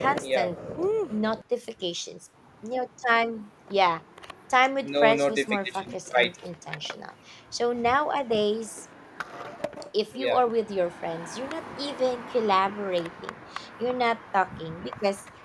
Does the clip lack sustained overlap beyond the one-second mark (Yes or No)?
No